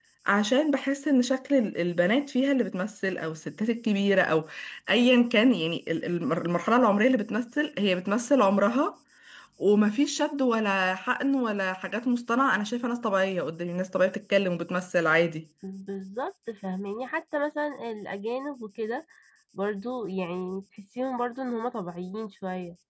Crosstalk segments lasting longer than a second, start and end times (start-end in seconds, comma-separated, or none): none